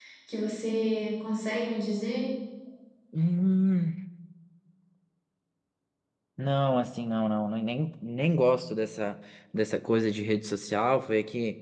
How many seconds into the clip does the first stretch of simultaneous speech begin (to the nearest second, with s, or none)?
none